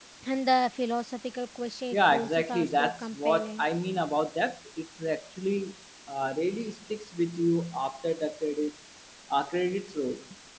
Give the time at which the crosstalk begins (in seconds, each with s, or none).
1.9 s